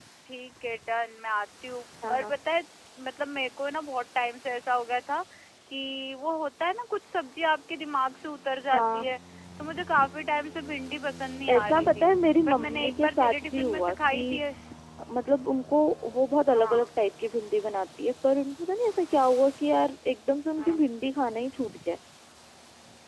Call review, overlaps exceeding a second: present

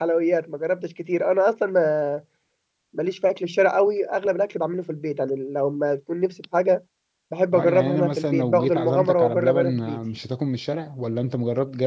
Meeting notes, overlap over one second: present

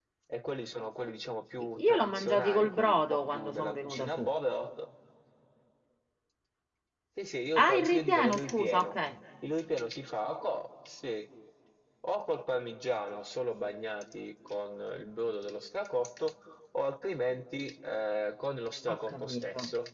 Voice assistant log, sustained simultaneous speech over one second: present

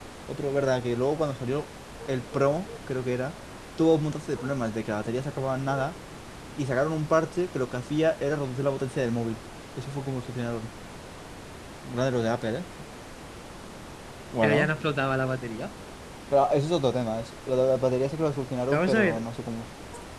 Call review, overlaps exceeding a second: none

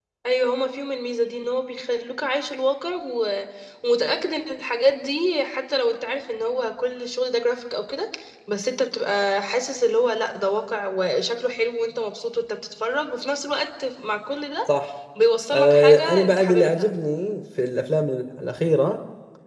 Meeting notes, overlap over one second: present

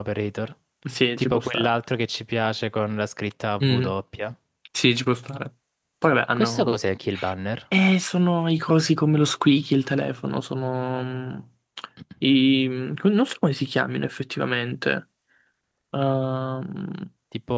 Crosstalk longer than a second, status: none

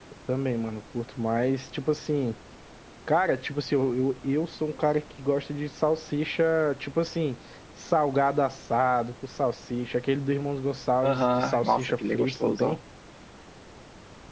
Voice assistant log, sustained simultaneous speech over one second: present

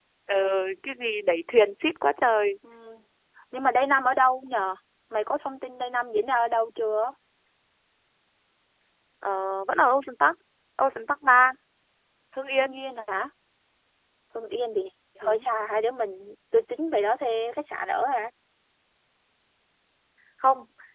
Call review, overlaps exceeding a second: none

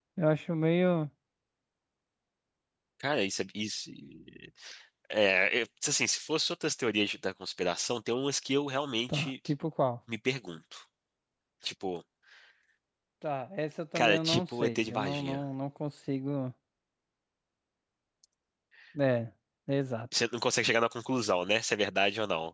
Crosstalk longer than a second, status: present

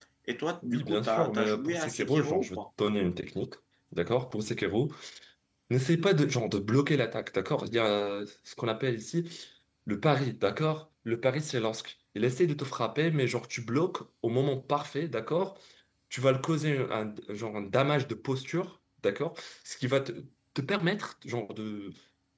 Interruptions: present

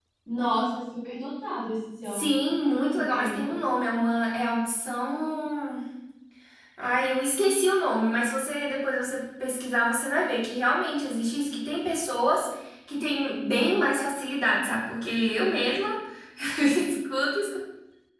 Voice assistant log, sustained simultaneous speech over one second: none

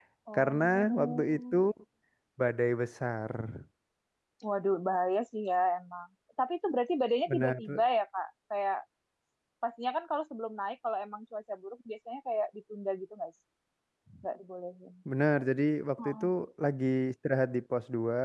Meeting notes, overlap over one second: present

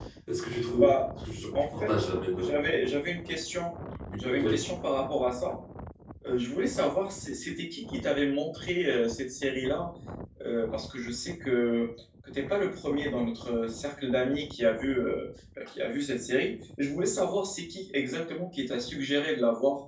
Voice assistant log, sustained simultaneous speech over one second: none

